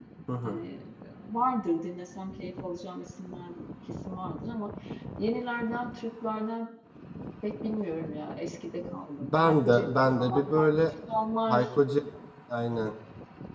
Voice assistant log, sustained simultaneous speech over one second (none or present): present